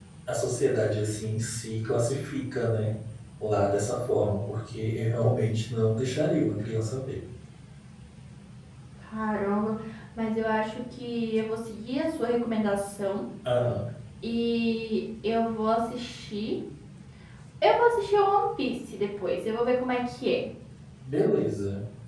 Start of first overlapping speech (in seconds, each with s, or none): none